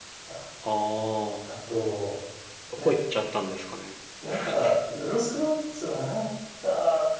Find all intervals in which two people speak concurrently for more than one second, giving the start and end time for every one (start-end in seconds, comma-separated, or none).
none